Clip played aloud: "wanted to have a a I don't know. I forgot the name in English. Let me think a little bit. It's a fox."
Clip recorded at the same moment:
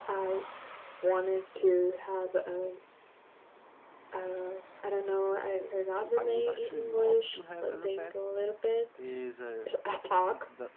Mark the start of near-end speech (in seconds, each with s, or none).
6.2 s